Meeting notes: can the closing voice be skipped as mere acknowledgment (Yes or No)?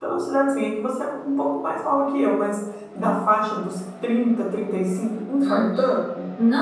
No